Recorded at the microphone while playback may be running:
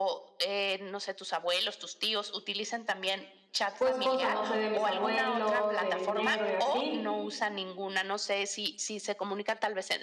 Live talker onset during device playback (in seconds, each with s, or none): 3.8 s